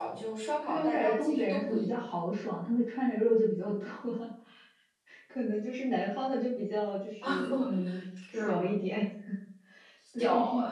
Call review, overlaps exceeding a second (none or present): present